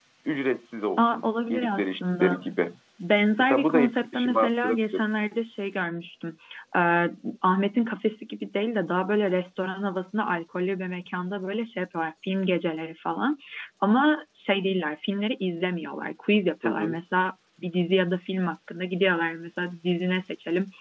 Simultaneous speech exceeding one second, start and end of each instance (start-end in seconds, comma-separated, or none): 1.0-2.4, 3.4-5.0